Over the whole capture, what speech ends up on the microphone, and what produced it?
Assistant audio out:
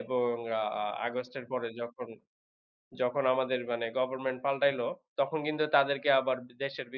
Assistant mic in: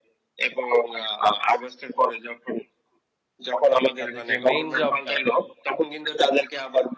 both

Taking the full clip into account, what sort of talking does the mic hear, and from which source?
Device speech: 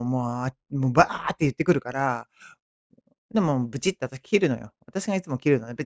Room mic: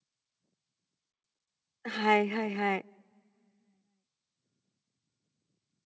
user only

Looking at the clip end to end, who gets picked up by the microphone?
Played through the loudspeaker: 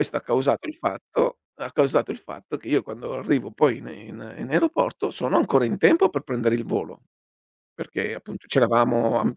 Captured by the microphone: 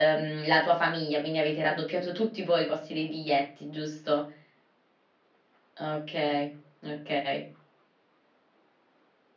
user only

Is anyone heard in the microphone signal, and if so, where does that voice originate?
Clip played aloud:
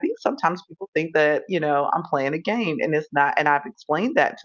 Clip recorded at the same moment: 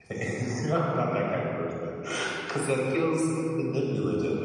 user only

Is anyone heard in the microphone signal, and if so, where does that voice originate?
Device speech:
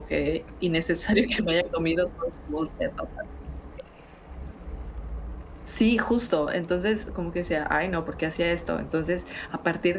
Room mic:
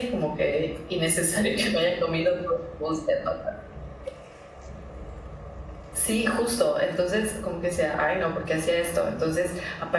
echo only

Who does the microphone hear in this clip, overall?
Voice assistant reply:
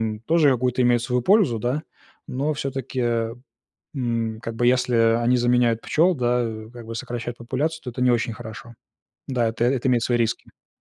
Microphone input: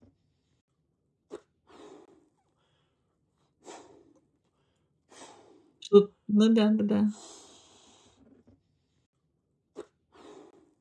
user only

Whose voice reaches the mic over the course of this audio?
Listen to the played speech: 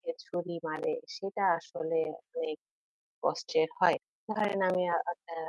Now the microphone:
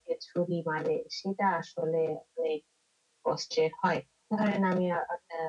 echo only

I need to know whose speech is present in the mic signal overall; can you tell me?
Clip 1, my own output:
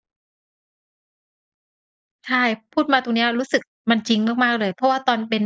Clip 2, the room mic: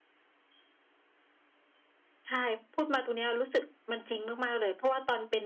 echo only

